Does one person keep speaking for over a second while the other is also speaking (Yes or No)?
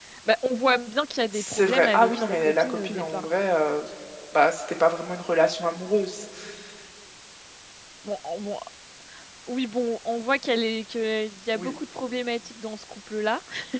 Yes